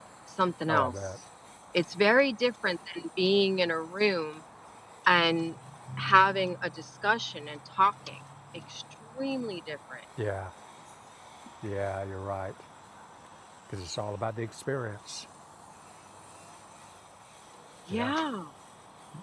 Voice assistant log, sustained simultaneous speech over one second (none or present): none